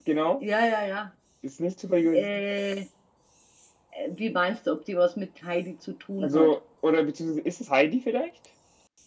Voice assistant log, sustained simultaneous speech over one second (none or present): none